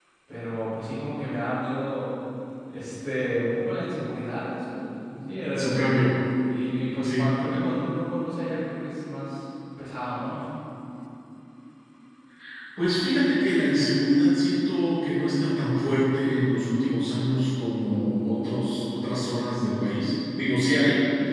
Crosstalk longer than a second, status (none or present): none